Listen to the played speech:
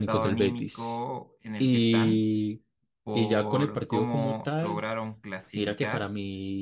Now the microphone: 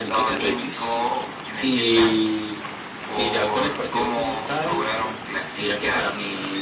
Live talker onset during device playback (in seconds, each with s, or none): none